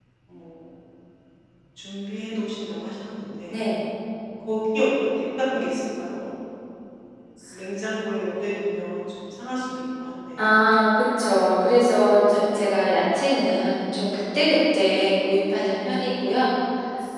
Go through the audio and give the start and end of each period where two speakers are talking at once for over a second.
none

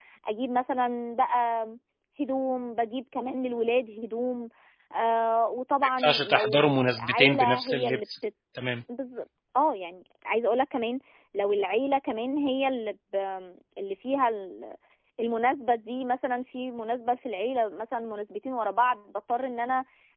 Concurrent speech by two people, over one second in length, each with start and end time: 5.8-8.2

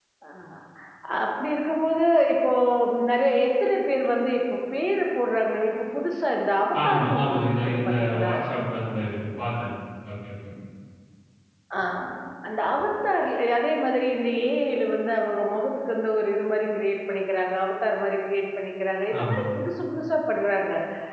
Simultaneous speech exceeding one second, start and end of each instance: 6.8-8.3

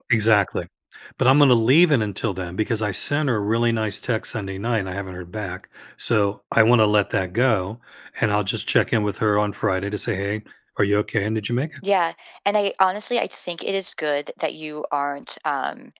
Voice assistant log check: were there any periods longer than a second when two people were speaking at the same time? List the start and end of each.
none

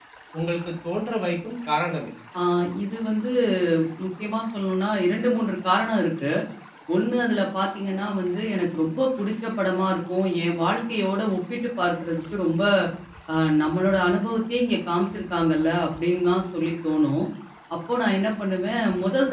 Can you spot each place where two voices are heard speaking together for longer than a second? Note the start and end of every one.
none

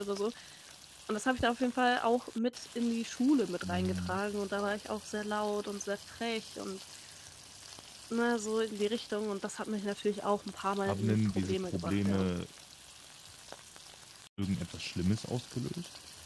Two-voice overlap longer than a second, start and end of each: 10.9-12.3

